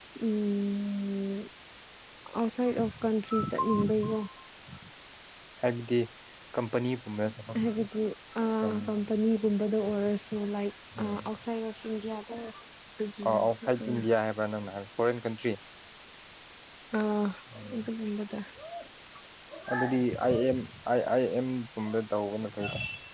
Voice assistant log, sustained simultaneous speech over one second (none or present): none